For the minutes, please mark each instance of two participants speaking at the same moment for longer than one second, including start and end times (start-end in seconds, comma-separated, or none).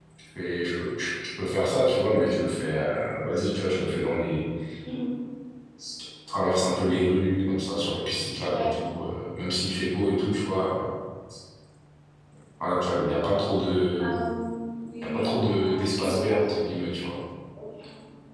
15.0-16.6